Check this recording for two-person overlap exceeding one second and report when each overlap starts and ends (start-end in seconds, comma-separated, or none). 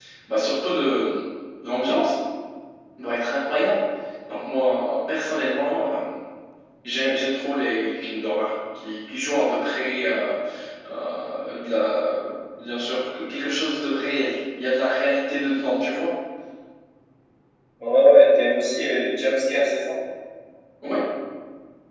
none